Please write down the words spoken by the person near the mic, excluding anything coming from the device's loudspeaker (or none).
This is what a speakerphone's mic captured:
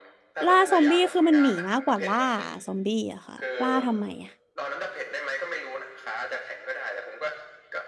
ล่าซอมบี้คือมันหนีมากกว่าล่าซอมบี้อะค่ะล่าทำไมอะ